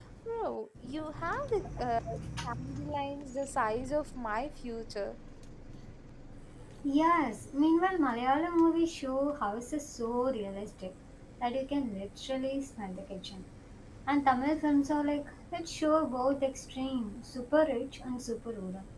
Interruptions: none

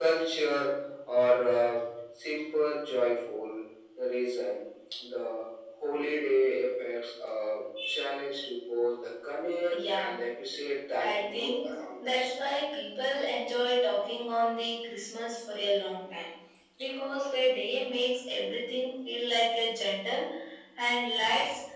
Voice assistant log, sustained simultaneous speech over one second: present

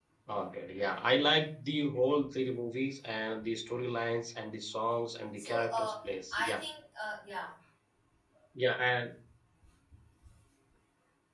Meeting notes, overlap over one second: present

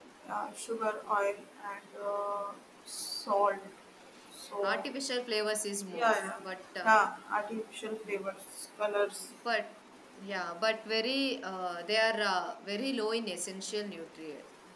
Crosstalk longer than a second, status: none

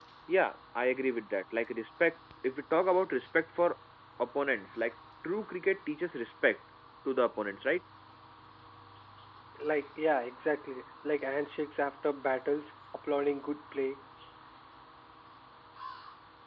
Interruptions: none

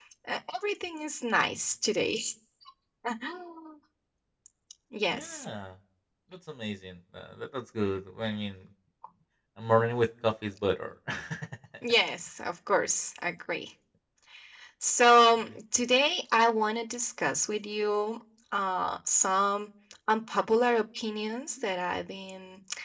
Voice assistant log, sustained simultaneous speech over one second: none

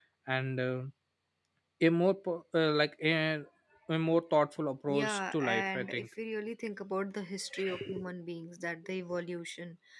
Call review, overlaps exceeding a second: present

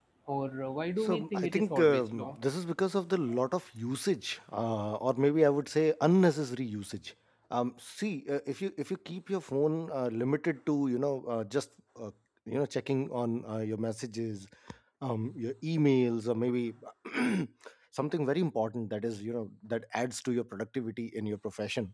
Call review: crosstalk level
present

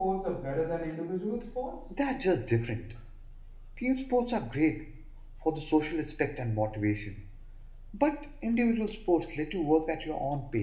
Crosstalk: none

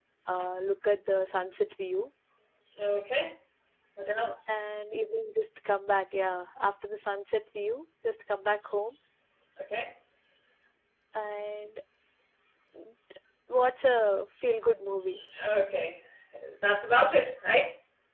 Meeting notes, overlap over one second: none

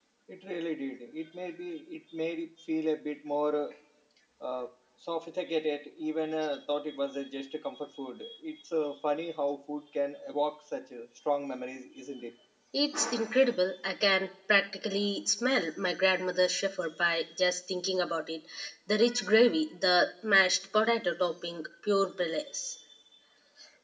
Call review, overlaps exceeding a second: none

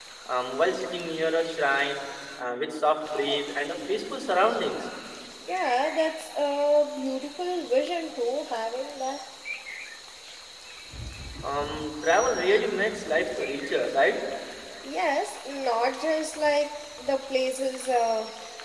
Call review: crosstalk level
none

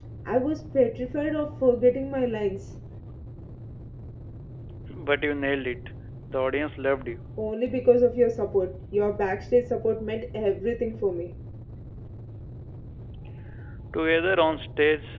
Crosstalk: none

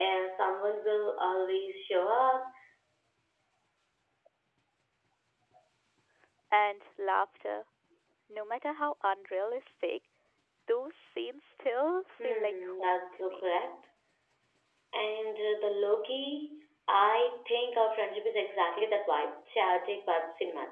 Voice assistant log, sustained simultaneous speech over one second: present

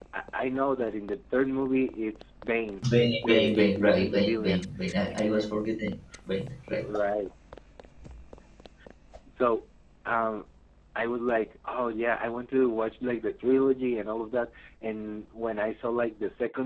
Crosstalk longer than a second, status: present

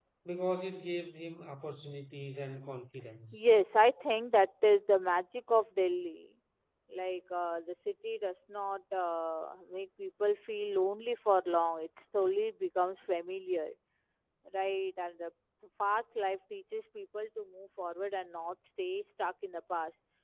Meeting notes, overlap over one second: none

